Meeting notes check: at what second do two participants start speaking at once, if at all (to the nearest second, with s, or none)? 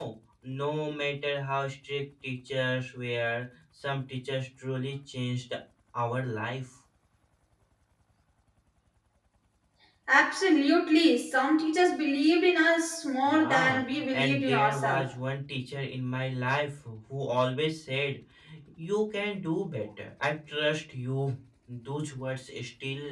13 s